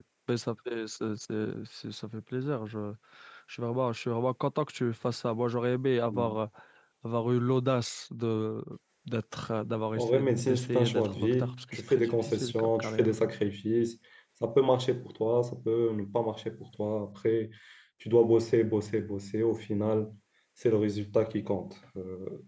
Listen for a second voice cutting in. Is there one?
Yes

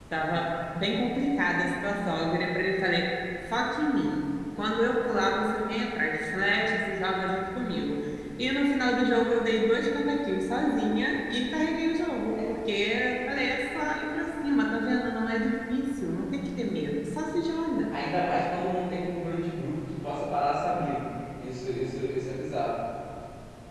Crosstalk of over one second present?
No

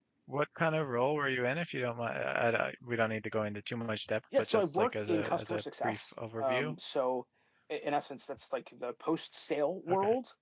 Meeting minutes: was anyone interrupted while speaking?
Yes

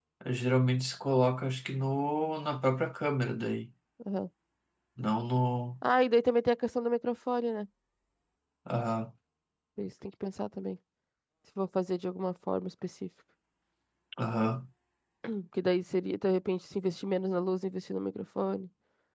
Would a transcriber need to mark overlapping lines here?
No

